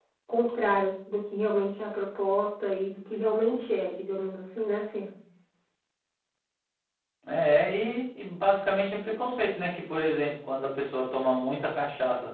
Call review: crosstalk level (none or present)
none